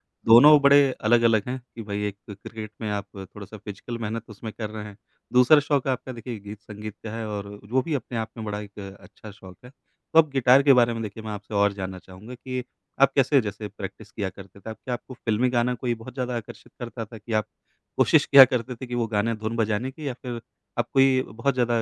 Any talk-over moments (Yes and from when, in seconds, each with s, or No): No